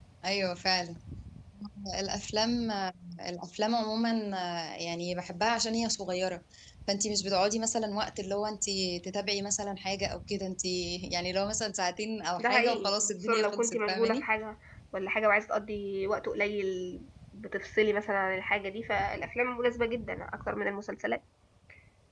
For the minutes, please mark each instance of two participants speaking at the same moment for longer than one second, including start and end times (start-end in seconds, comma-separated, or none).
12.4-14.2